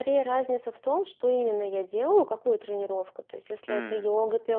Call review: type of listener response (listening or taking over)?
listening